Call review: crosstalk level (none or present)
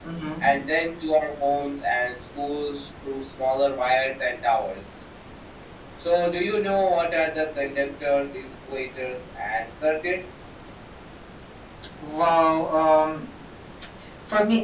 none